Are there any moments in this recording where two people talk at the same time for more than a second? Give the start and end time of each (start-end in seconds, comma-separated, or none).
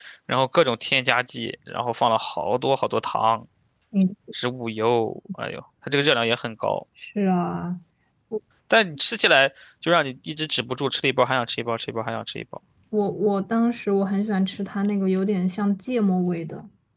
none